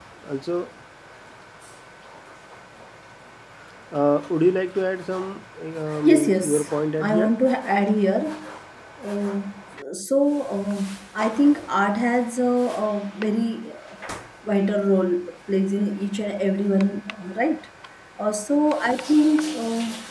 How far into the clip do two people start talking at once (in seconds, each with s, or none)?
6.0 s